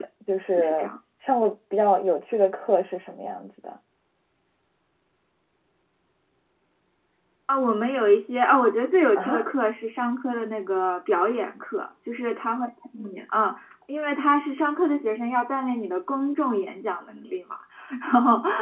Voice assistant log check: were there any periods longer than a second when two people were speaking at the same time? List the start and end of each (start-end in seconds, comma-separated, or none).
none